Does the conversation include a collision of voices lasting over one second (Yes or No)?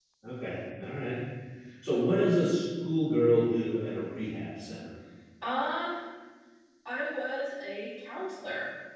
No